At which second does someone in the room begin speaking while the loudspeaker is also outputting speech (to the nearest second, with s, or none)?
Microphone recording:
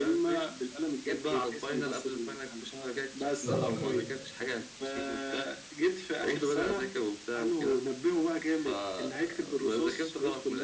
3 s